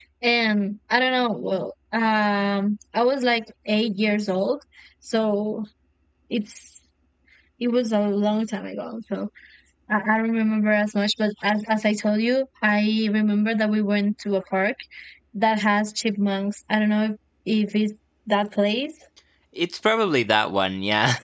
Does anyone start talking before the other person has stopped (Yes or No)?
No